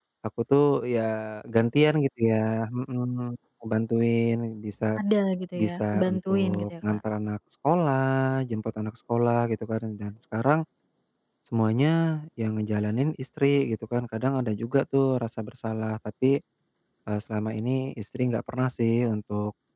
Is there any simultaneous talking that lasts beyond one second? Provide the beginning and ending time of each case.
5.6-7.0

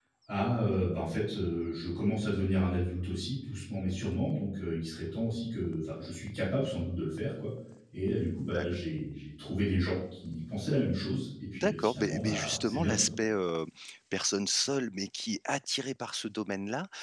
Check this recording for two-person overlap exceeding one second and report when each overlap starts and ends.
11.5-13.1

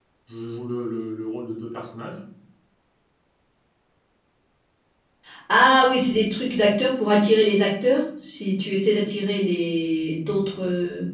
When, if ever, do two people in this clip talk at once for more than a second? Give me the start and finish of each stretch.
none

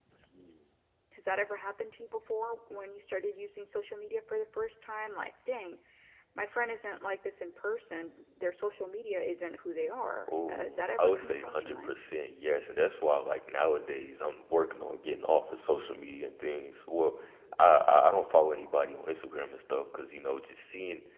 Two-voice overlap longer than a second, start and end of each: 10.5-11.9

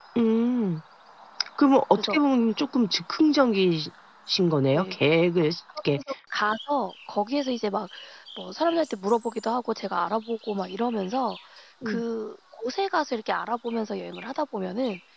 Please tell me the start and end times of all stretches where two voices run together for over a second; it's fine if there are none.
none

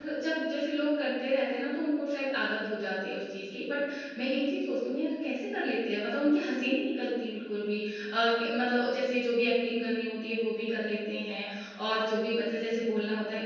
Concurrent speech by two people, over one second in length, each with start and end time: none

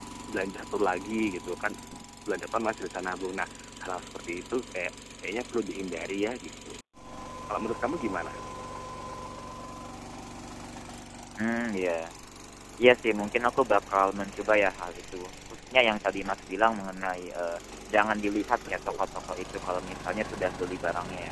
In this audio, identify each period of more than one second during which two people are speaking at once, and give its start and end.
none

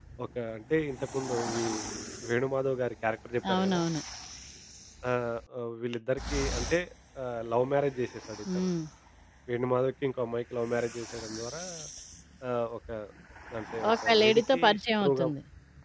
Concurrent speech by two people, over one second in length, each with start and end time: 14.1-15.2

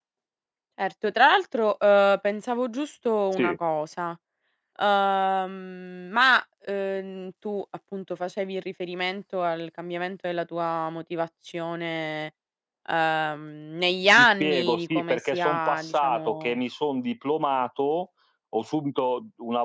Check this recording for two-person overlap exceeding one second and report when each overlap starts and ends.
14.2-16.6

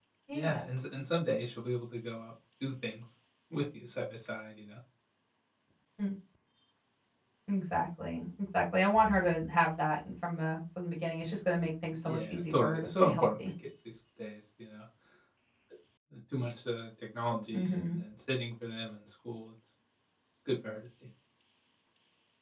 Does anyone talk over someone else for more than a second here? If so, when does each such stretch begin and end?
12.0-13.3

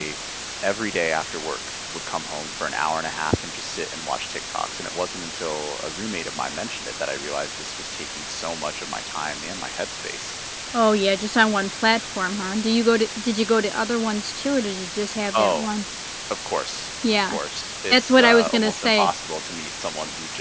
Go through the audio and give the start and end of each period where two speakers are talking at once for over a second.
17.9-19.1

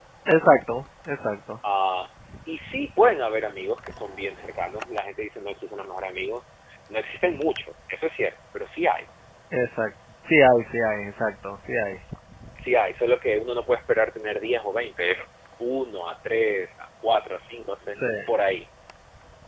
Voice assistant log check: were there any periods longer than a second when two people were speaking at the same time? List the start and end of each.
none

